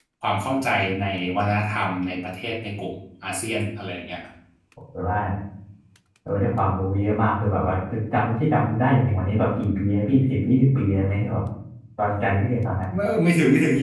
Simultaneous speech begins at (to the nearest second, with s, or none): none